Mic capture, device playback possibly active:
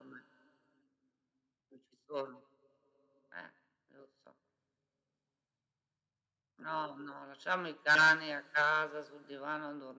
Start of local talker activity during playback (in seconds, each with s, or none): none